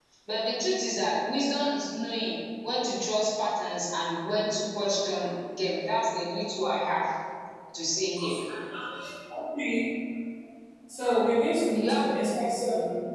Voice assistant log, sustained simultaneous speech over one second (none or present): present